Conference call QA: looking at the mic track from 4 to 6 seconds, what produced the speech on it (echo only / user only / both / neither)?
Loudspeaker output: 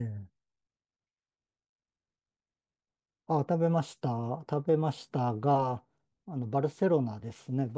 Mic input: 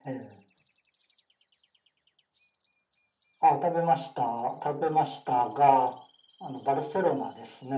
echo only